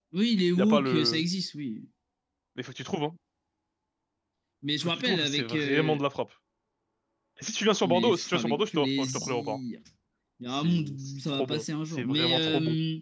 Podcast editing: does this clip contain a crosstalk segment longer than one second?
Yes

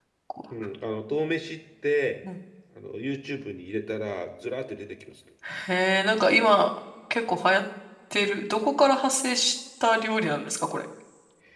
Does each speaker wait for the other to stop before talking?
Yes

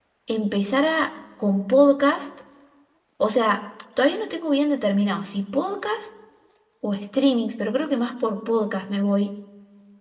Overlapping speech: No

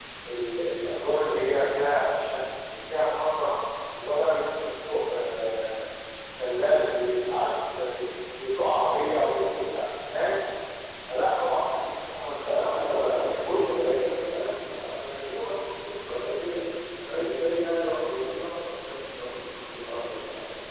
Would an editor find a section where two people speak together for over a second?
Yes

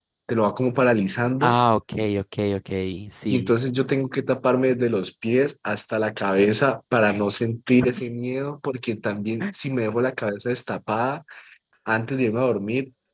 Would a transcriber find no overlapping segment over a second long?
Yes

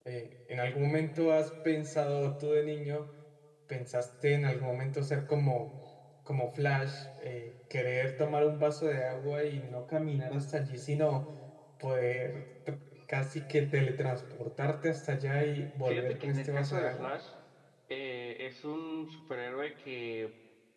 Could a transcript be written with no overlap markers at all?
No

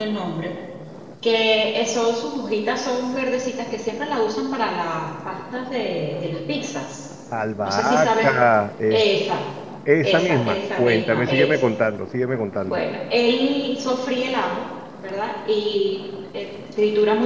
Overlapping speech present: Yes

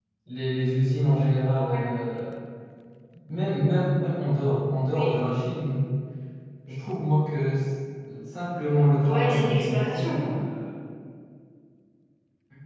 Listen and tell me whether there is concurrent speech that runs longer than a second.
Yes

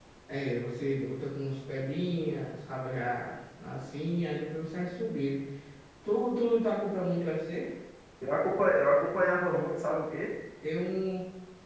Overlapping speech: No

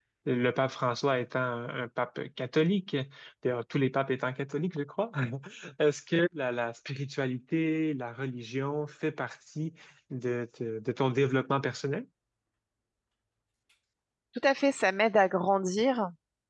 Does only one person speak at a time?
Yes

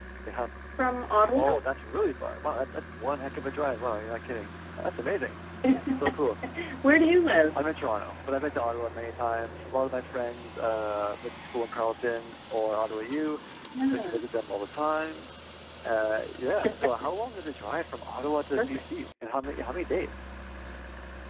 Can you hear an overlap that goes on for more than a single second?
No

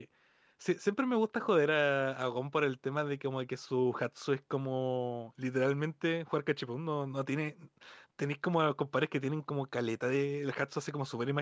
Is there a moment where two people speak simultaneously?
No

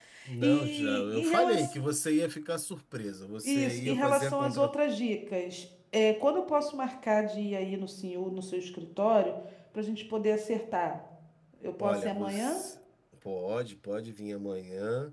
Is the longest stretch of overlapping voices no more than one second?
No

